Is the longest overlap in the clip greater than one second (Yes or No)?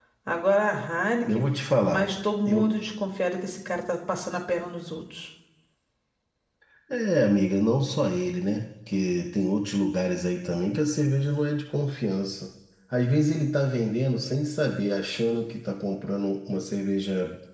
No